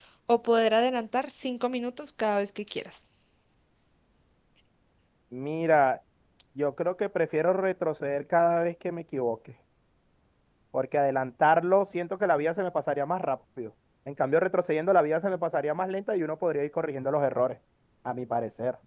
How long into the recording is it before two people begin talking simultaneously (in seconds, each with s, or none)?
none